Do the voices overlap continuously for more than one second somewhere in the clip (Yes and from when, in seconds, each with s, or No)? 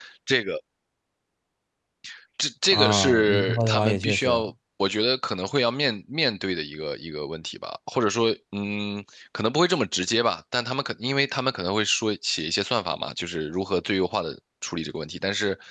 Yes, from 2.7 s